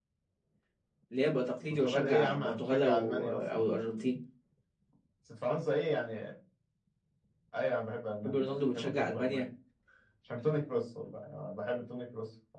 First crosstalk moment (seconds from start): 2 s

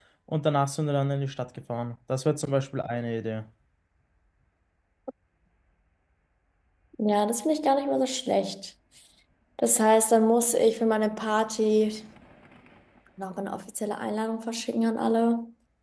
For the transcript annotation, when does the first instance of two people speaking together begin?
none

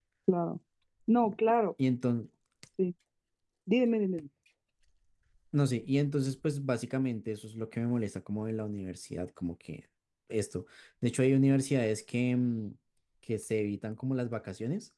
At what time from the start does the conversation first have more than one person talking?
none

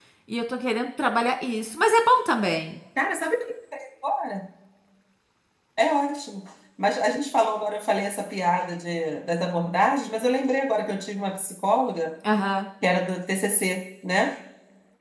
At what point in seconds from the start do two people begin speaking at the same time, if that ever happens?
none

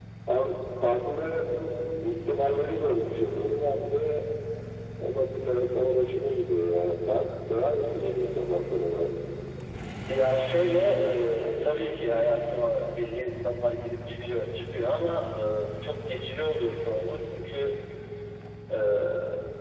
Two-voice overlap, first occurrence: none

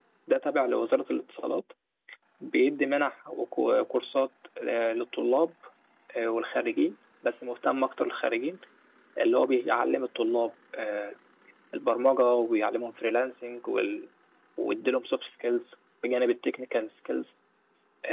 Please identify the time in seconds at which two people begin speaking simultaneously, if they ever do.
none

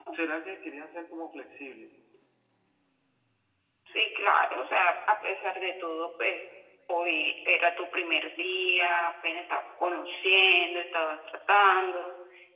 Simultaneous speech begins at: none

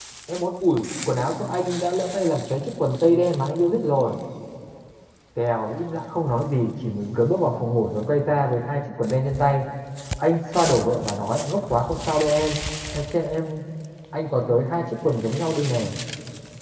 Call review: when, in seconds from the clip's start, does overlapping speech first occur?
none

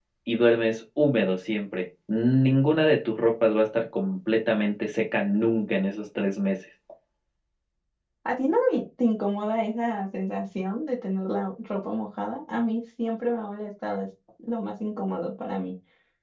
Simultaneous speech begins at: none

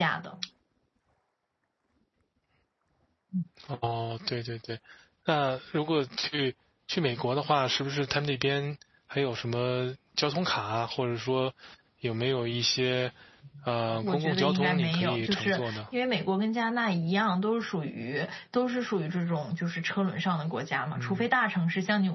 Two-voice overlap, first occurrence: 14 s

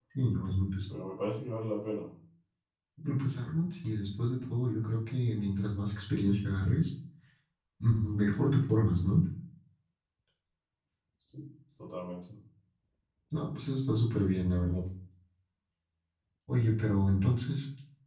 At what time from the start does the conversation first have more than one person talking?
none

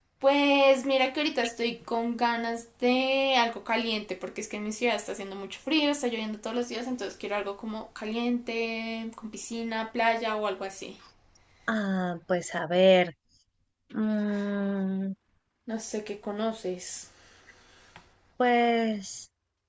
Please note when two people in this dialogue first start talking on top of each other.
none

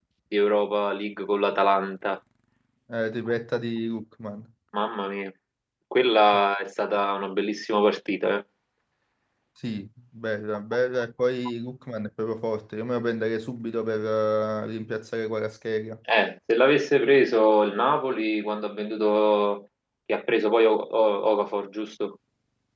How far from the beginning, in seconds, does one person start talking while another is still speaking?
none

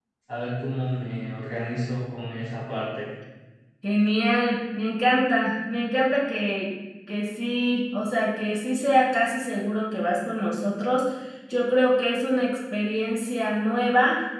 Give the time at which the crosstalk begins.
none

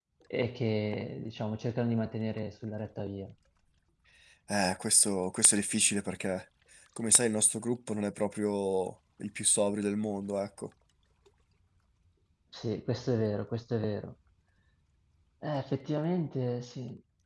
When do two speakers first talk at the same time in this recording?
none

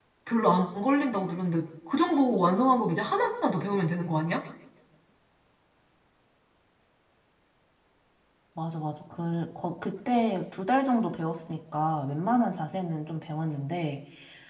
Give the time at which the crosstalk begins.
none

